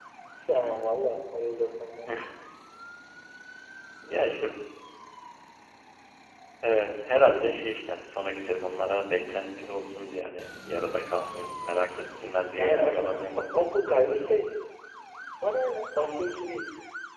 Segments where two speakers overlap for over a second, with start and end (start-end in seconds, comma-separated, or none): 12.2-13.4